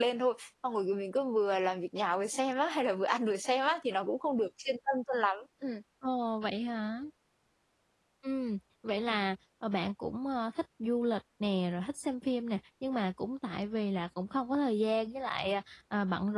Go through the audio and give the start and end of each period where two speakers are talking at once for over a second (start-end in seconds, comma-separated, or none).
none